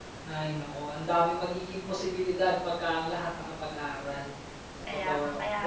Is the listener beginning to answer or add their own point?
Yes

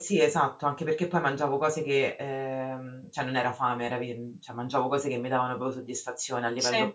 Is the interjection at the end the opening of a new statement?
No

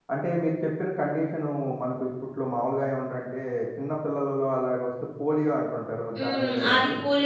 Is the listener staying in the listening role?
No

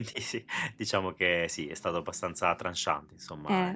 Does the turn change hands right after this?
Yes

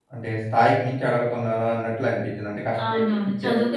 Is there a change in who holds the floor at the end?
Yes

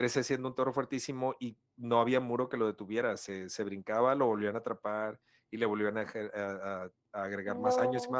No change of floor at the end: Yes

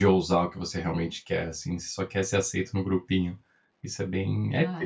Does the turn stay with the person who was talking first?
No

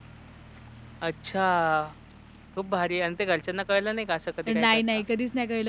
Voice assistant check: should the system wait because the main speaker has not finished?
No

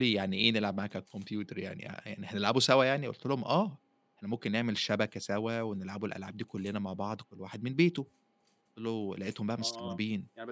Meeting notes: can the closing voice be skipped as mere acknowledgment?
No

